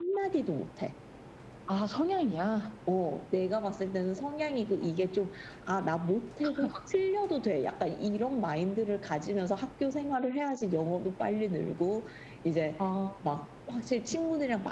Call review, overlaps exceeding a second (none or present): none